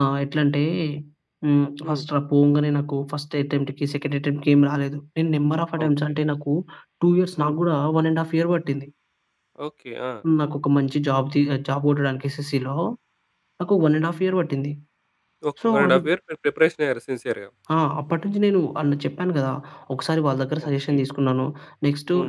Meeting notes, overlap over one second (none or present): none